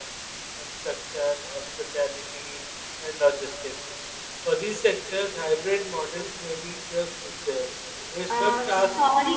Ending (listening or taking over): taking over